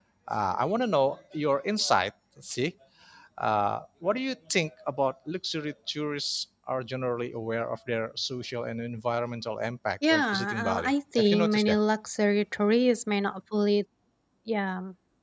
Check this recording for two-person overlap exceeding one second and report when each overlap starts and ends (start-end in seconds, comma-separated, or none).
10.1-11.8